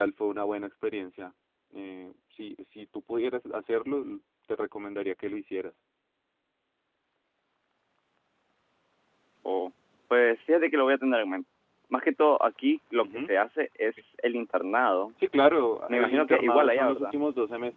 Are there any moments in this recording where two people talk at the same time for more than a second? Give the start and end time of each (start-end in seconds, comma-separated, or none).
15.9-17.1